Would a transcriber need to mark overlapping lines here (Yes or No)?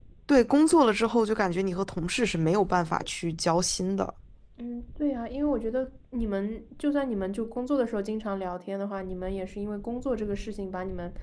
No